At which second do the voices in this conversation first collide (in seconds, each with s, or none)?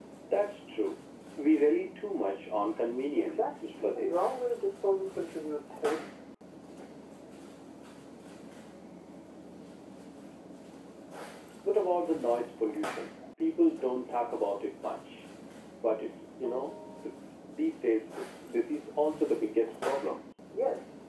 3.2 s